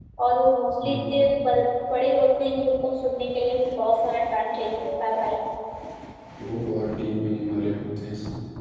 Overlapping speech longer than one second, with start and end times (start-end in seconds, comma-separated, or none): none